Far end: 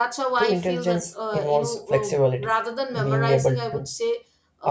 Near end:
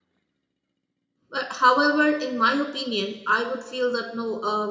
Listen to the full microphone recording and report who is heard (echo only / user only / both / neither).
user only